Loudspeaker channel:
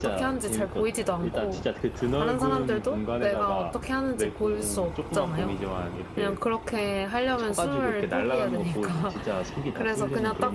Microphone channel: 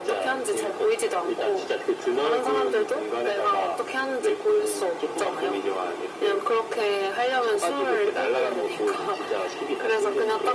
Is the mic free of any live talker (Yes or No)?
Yes